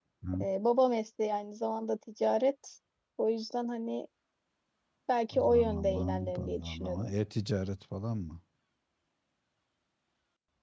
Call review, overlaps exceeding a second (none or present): present